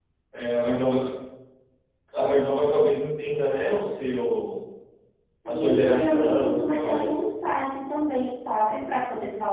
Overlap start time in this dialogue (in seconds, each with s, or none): 5.7 s